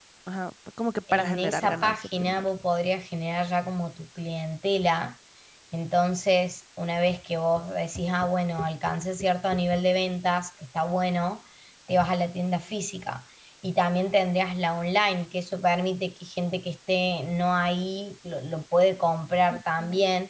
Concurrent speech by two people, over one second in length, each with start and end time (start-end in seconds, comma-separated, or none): 1.1-2.5